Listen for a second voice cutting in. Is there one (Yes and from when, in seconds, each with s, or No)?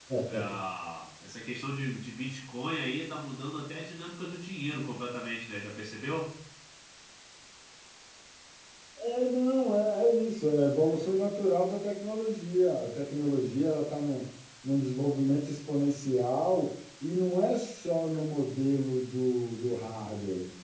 No